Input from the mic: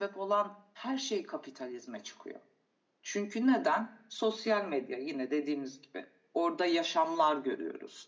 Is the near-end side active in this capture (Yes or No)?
No